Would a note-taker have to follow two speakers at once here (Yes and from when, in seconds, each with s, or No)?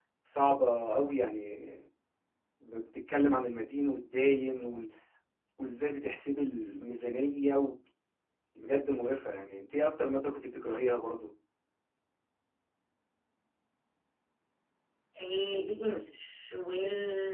No